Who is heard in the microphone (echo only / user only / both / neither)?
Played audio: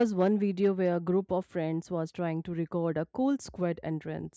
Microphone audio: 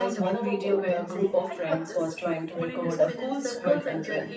both